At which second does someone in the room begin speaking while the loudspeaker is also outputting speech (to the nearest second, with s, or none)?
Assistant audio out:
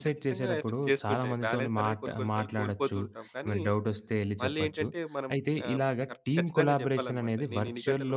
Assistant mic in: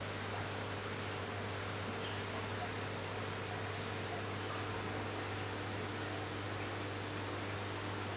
none